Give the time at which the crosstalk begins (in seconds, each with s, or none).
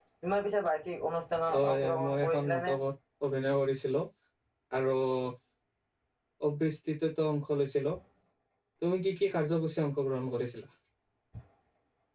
1.5 s